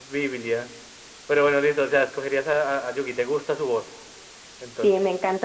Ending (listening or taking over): taking over